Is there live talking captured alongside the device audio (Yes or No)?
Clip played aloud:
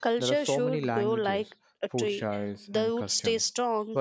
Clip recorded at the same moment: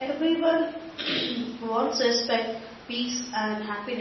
Yes